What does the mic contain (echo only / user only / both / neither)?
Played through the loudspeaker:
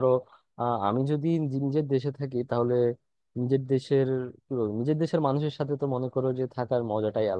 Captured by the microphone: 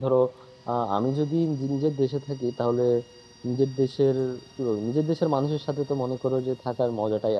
echo only